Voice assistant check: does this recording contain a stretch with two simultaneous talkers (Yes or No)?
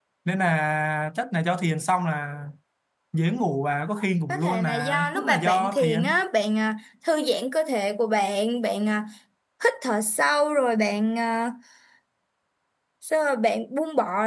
Yes